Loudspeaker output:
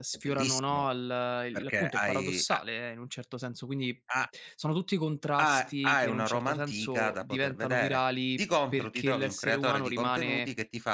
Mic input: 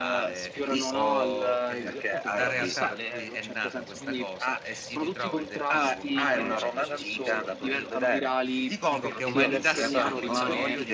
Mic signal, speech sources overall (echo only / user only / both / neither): both